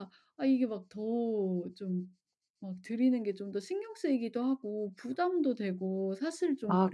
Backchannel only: No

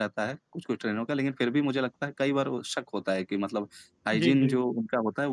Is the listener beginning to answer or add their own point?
No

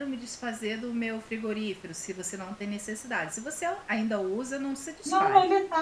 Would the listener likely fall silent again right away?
No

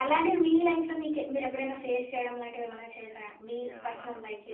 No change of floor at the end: No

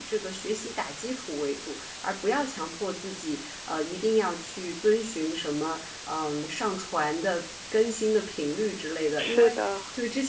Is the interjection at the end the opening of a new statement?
No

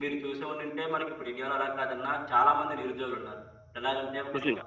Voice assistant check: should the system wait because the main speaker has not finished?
Yes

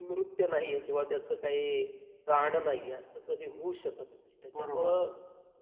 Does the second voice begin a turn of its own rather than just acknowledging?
No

